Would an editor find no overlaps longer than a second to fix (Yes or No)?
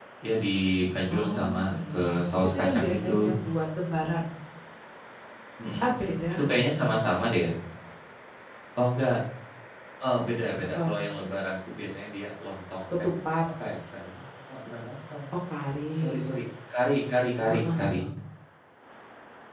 No